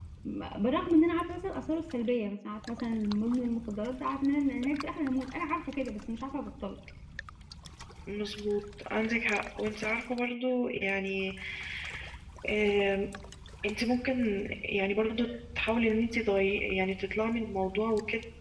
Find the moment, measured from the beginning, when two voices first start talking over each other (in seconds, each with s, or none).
none